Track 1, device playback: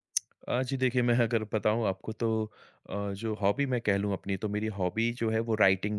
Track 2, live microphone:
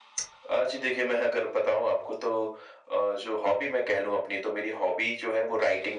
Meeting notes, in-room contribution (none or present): none